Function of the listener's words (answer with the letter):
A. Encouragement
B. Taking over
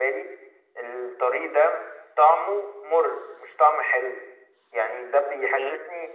A